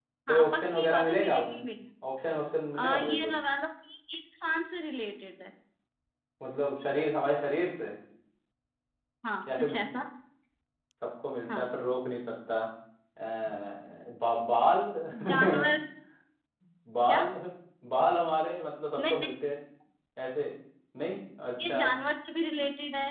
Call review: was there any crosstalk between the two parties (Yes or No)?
Yes